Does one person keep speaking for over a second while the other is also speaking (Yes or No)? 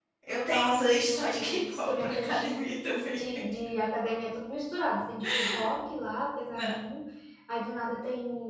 Yes